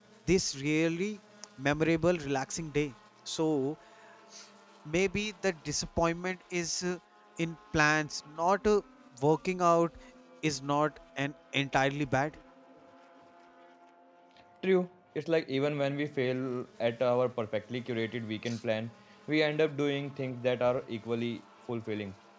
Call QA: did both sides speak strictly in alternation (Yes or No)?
Yes